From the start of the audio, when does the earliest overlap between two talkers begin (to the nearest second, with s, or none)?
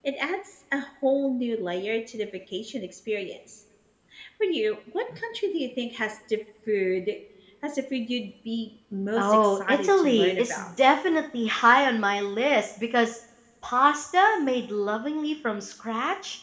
9 s